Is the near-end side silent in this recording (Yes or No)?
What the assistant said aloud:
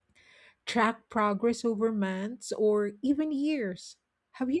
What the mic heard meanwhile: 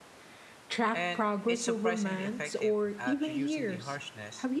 No